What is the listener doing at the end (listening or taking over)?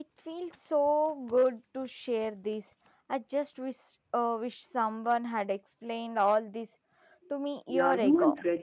taking over